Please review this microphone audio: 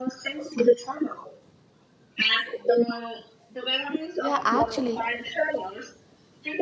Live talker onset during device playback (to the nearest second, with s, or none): 4 s